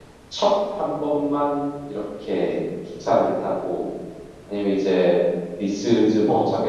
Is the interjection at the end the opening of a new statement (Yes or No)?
No